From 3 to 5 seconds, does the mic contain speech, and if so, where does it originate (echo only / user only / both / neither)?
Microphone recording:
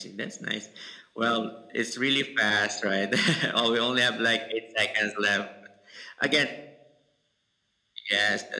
echo only